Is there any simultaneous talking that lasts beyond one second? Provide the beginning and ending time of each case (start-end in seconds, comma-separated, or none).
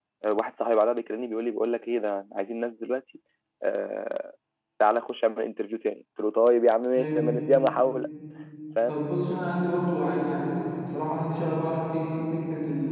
none